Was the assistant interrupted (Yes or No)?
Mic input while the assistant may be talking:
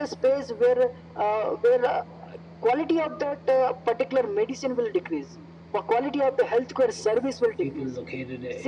Yes